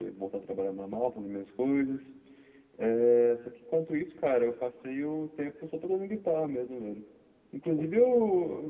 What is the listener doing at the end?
listening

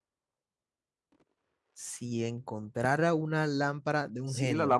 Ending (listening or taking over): taking over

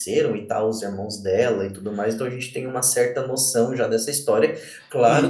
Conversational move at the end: listening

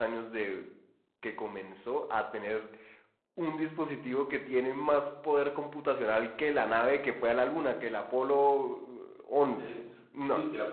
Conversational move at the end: taking over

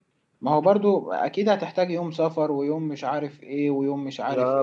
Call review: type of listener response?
taking over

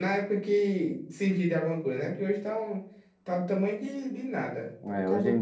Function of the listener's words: taking over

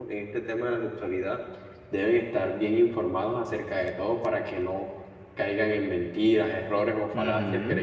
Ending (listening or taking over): listening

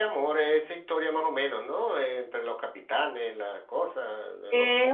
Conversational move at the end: taking over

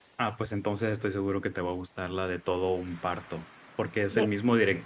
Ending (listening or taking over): listening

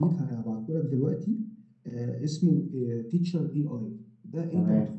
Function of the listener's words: listening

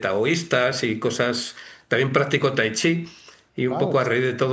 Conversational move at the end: listening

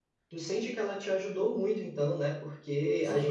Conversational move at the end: taking over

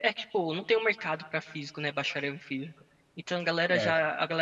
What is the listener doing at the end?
listening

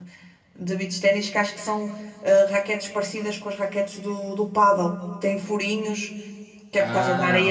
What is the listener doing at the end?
listening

